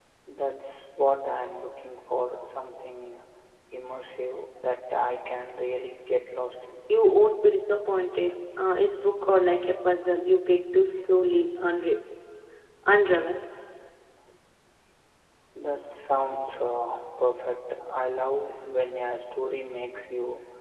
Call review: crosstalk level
none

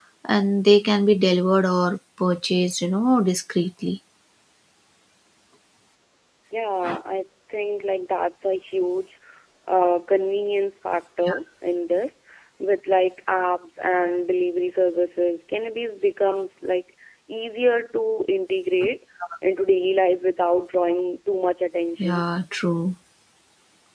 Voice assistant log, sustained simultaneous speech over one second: none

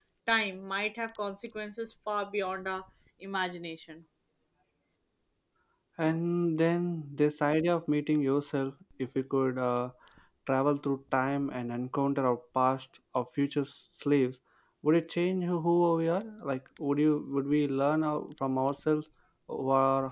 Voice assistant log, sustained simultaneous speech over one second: none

